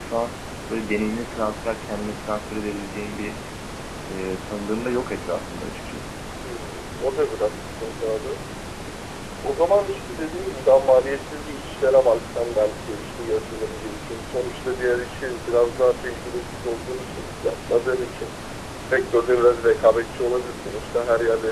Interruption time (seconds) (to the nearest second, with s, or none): none